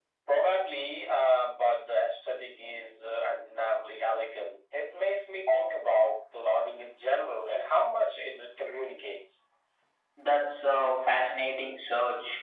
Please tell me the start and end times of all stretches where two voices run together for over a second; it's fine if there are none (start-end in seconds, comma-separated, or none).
none